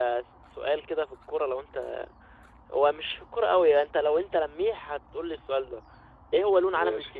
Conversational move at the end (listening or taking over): listening